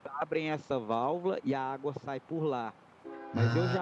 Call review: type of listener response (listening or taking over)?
listening